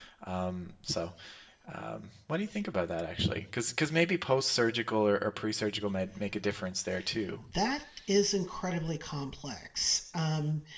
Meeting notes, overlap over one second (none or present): none